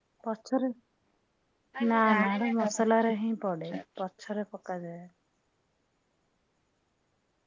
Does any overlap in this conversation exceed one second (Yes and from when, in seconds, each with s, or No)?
Yes, from 1.8 s